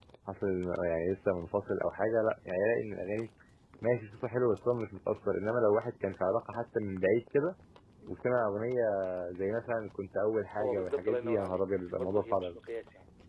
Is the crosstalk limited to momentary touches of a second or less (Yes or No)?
No